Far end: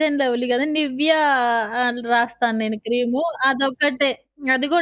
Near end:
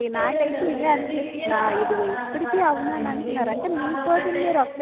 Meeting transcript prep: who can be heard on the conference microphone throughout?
both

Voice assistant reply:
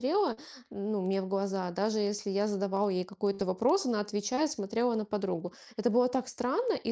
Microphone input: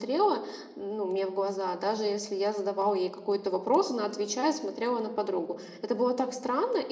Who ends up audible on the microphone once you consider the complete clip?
echo only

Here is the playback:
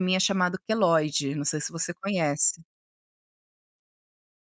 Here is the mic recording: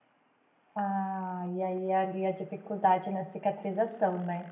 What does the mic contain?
user only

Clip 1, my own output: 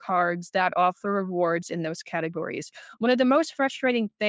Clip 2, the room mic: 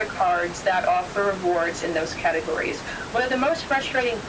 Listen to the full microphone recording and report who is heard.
echo only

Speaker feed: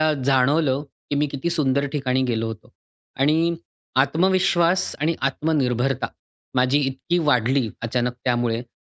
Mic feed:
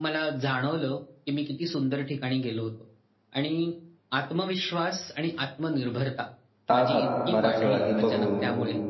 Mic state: both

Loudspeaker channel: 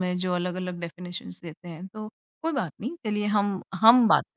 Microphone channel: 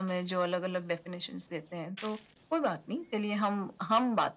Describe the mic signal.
echo only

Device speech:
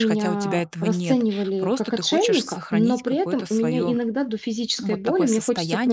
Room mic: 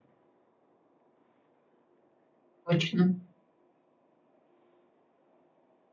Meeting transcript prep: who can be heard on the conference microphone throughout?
user only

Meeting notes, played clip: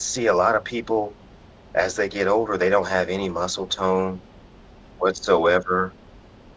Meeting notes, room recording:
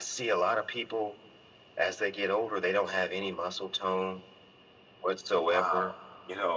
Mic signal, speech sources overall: both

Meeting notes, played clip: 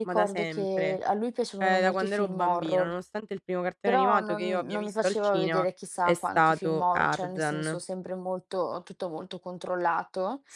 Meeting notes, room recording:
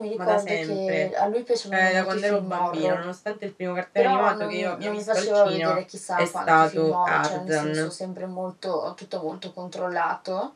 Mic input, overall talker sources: echo only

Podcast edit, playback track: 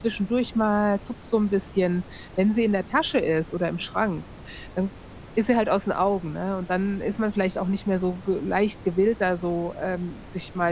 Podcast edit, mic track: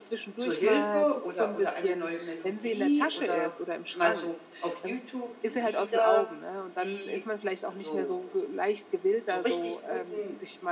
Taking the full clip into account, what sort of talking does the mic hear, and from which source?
both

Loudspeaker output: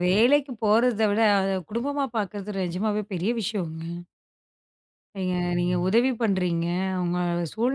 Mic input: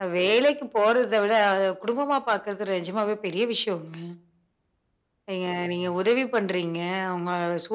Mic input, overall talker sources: echo only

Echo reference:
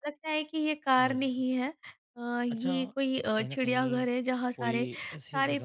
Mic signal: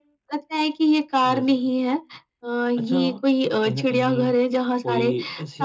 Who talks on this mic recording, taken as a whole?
echo only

